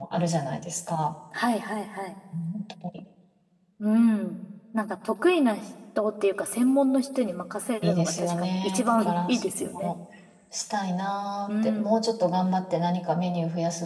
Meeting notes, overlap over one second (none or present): present